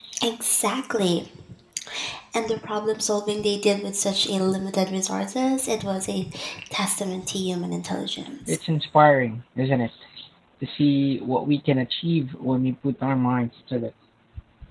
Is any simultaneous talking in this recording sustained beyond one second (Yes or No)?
No